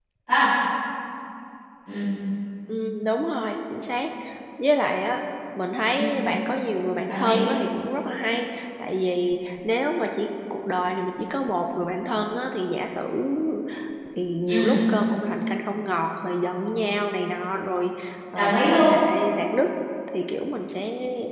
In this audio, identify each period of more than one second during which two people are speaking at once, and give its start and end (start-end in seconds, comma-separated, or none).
none